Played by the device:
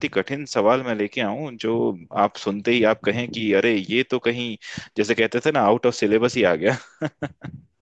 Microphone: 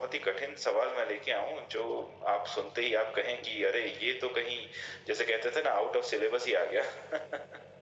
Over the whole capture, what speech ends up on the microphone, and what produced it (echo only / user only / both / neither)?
echo only